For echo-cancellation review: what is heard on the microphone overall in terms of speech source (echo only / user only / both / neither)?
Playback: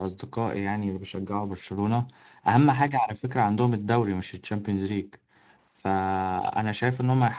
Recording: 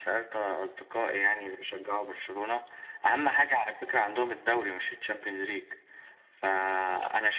echo only